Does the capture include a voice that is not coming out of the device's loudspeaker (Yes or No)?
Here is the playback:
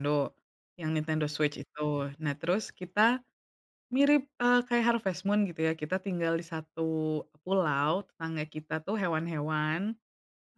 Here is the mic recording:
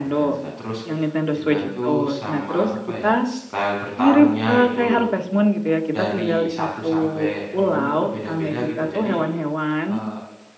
Yes